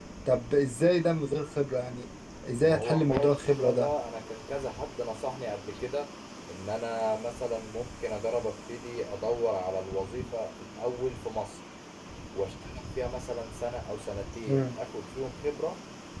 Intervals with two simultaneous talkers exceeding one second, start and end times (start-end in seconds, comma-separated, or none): 2.6-3.9